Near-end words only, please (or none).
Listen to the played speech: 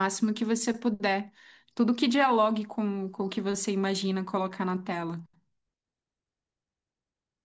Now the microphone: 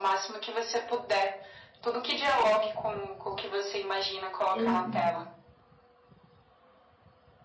enfim,